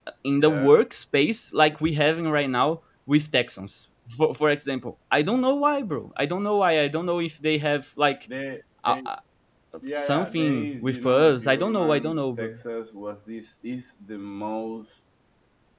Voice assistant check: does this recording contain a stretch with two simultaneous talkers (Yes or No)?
Yes